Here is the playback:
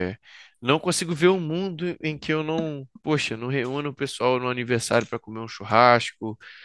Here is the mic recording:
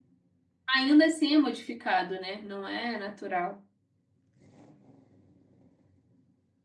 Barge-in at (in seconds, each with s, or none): 0.7 s